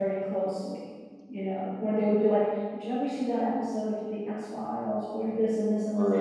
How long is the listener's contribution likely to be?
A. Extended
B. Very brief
B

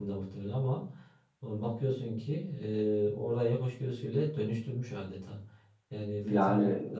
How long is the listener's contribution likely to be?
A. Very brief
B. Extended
A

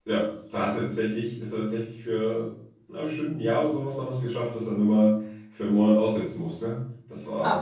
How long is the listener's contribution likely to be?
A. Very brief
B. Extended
B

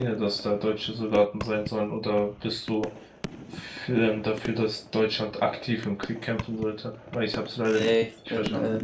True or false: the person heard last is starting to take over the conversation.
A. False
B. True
B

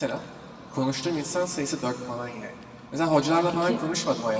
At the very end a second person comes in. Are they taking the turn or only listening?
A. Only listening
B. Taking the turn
A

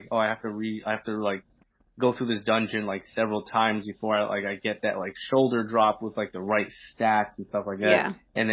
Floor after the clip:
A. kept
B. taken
A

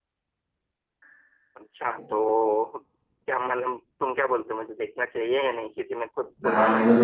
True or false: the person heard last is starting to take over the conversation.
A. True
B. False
A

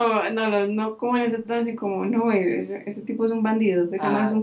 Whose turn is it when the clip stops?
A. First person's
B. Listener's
B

